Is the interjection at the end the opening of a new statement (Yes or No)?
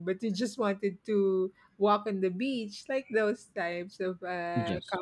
No